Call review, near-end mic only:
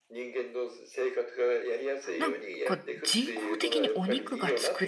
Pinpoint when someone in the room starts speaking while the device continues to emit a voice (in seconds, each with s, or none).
2.2 s